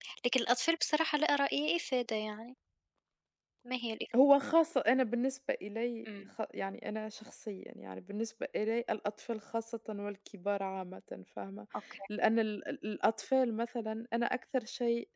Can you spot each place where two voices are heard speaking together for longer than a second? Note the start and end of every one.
none

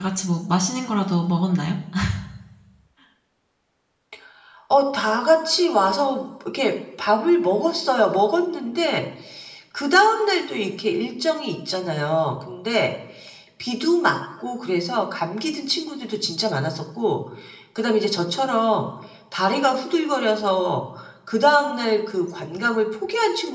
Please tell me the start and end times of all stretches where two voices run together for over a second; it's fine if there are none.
none

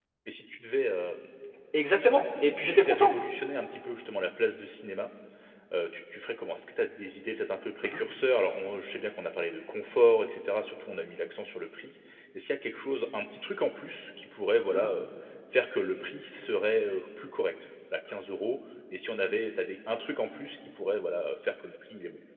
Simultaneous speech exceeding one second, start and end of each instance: none

